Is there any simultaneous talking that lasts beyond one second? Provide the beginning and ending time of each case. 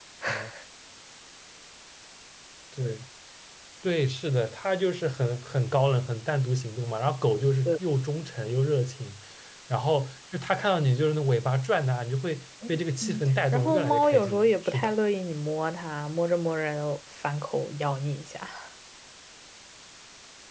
13.0-14.9

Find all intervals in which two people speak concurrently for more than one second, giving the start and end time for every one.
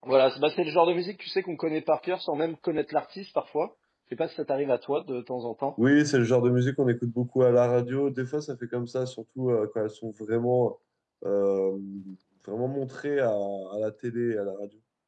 none

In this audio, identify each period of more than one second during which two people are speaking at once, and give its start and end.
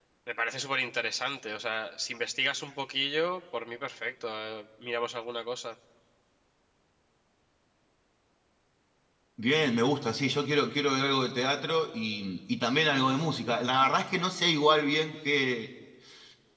none

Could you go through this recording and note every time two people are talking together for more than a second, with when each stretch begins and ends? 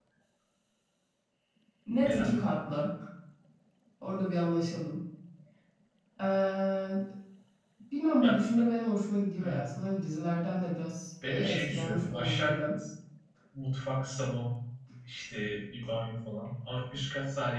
11.2-12.8

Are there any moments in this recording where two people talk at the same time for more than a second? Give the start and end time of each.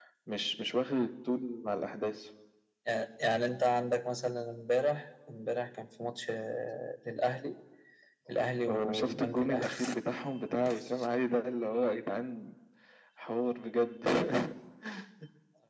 8.7-9.9

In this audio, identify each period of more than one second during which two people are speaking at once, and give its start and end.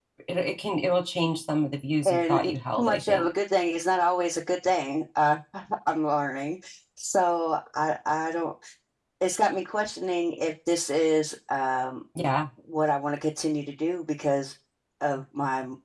2.0-3.3

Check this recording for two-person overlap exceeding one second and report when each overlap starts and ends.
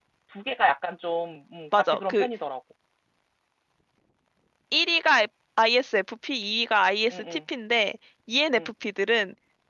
none

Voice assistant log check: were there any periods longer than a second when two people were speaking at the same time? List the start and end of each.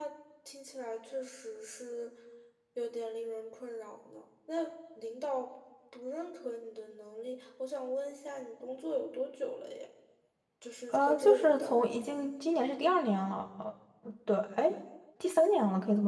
10.9-12.2

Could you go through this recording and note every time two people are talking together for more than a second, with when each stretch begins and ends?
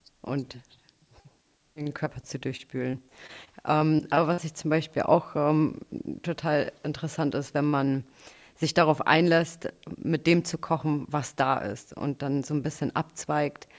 none

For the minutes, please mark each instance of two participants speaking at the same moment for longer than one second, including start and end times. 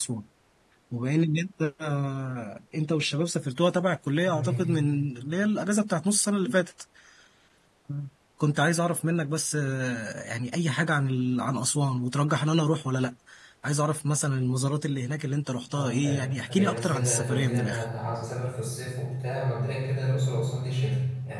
15.7-17.8

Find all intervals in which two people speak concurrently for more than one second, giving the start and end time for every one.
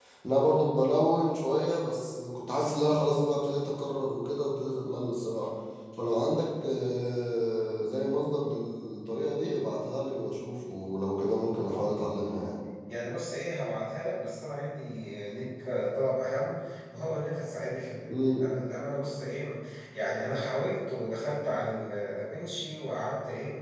none

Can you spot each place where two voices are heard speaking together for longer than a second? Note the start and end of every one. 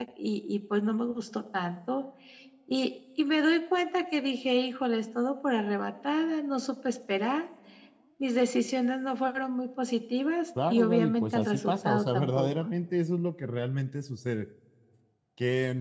10.7-12.5

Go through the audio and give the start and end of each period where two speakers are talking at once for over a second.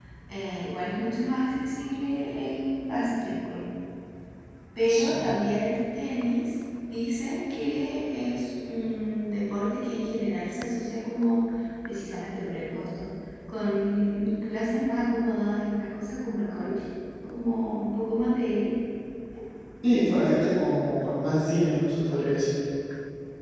none

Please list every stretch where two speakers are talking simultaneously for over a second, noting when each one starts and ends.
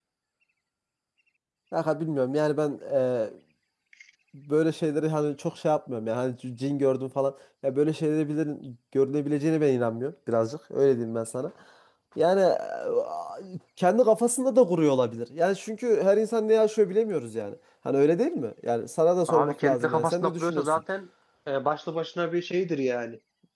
19.3-20.8

